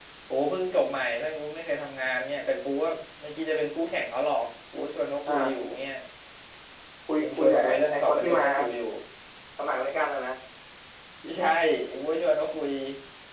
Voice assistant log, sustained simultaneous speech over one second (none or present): present